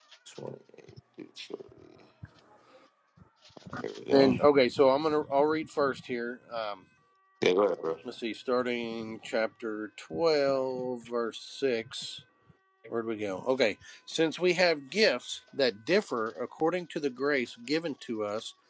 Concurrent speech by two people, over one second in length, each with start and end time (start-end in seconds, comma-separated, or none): none